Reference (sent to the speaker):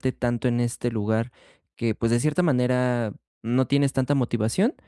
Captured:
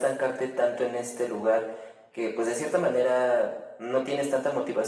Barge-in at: none

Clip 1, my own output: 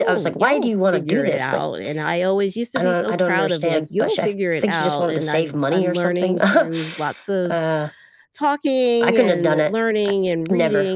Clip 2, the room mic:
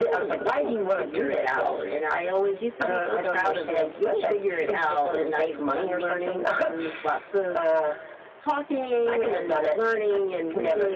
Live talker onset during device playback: none

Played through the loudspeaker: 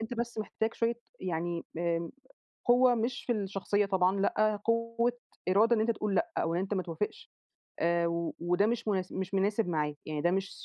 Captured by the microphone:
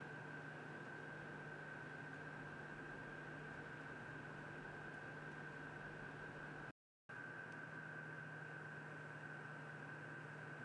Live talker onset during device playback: none

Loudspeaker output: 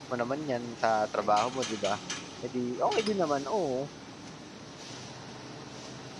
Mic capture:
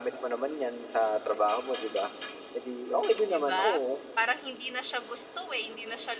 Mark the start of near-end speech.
3.3 s

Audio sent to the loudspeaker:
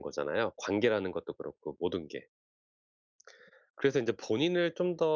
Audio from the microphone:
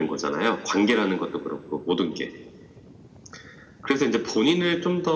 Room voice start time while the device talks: none

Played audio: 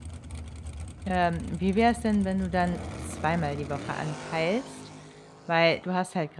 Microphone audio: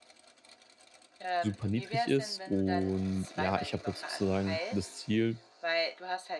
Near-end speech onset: 1.4 s

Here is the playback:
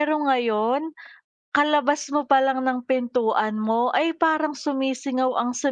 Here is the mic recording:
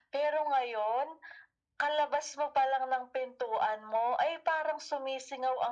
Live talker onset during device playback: none

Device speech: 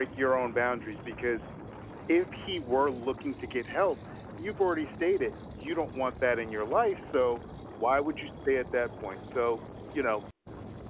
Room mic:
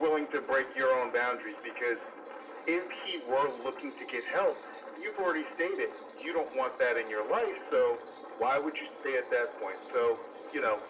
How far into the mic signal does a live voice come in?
none

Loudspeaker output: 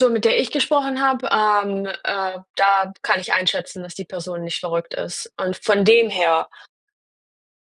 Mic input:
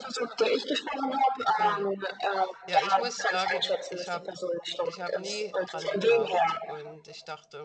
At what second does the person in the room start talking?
1.6 s

